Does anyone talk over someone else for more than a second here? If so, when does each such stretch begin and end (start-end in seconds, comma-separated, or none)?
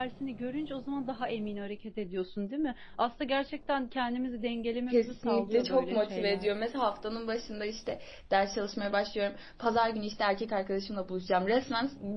4.9-6.5